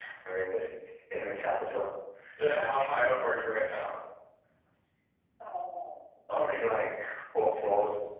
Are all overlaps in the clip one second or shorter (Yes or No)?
Yes